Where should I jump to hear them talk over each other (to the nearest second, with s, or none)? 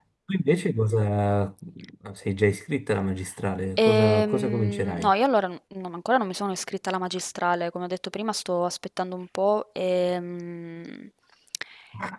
4 s